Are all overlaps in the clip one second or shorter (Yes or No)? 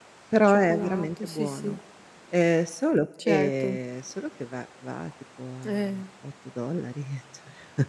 No